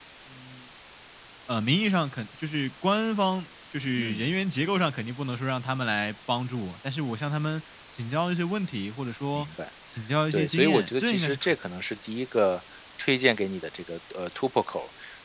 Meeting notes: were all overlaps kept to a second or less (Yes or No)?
No